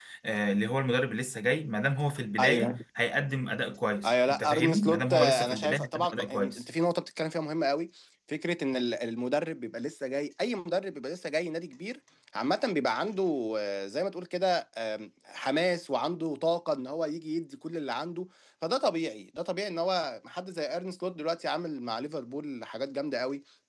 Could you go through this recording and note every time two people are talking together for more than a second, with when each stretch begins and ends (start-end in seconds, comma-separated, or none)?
4.0-6.6